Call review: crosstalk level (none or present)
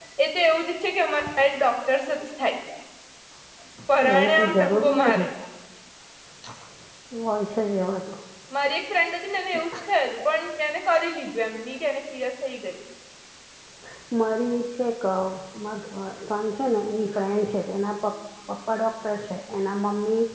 present